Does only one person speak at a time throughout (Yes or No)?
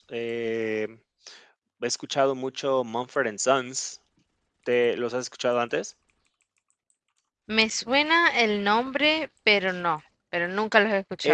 Yes